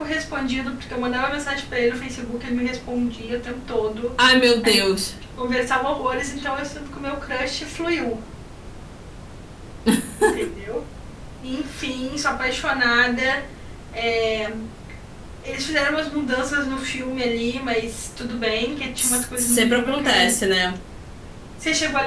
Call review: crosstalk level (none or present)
present